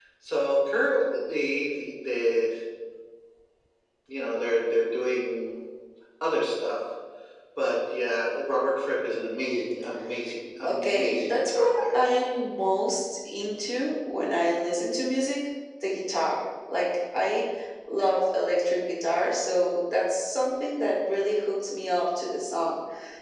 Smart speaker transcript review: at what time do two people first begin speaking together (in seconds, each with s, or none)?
10.6 s